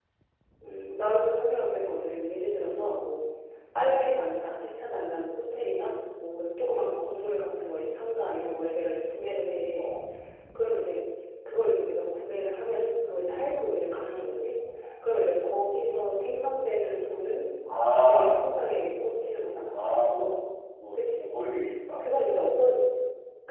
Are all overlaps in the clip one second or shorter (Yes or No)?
Yes